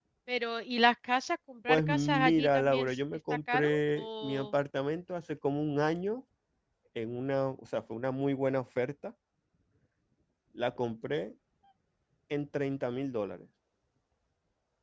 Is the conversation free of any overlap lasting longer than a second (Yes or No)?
No